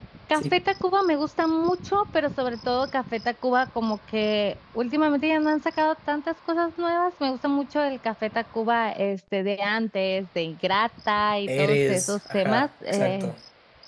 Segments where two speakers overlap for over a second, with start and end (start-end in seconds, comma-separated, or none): 11.5-13.3